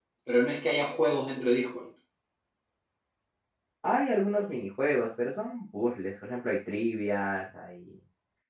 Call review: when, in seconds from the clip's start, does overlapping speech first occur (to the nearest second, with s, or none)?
none